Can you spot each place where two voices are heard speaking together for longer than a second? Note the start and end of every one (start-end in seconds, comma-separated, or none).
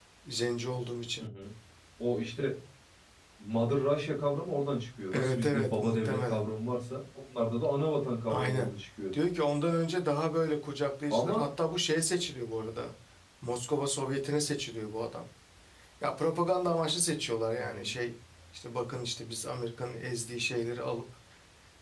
5.1-6.5